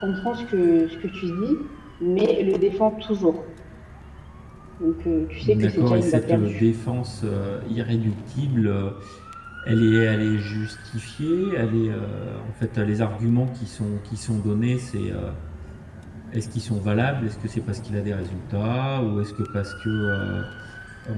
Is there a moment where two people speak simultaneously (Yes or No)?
Yes